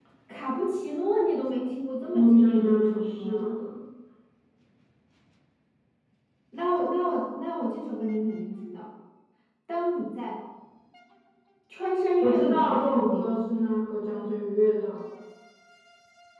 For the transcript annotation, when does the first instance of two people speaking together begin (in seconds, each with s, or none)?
2.1 s